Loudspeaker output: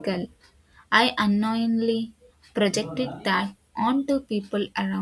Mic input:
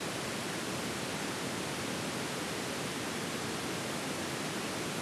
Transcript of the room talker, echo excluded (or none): none